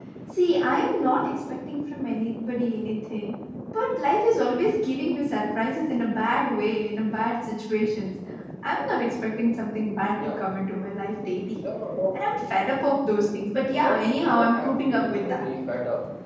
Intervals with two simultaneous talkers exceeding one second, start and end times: 13.8-15.4

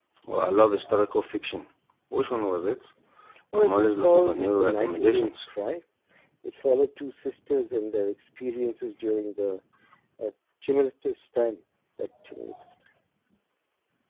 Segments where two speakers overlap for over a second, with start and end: 3.5-5.4

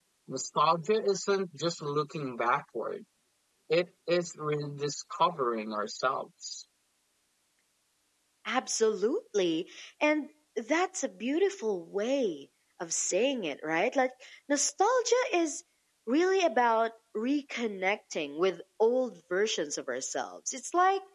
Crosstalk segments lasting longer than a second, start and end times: none

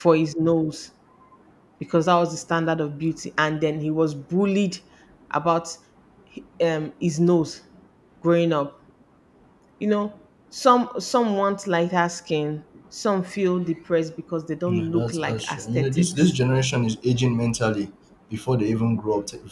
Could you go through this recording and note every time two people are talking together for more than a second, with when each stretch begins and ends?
14.7-16.3

